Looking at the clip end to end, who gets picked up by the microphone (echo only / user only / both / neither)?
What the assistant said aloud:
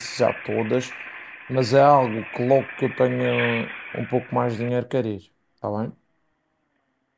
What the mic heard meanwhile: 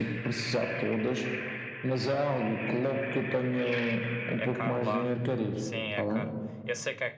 both